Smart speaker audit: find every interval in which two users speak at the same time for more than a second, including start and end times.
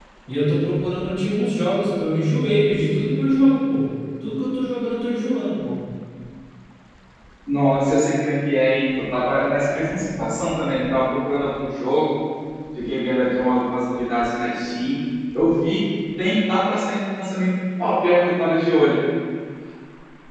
none

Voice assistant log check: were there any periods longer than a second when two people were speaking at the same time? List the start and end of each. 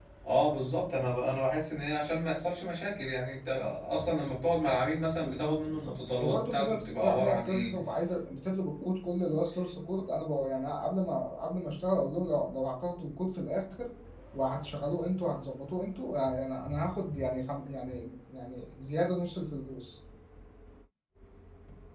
5.2-7.7

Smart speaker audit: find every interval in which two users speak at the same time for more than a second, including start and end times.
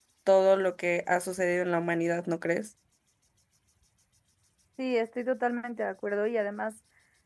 none

